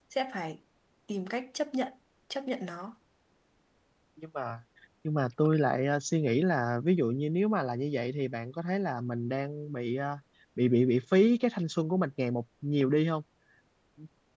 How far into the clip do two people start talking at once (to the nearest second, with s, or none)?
none